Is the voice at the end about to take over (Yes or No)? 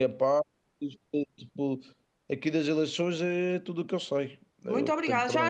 Yes